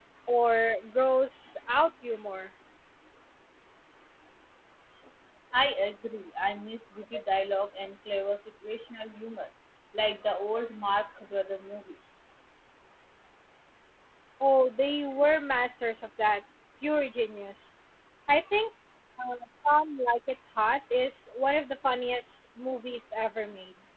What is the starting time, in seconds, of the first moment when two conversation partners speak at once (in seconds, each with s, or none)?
none